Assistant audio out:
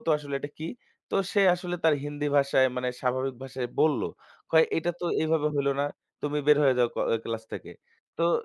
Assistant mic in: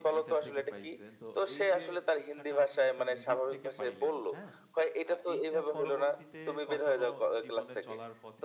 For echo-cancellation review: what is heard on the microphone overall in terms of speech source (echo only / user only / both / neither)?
both